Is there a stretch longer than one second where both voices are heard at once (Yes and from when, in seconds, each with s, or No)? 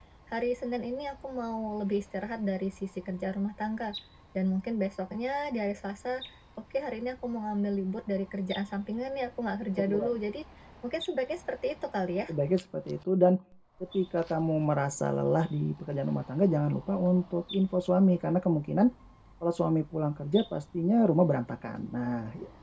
No